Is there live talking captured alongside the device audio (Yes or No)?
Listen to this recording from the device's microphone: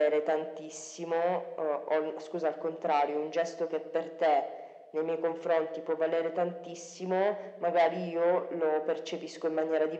No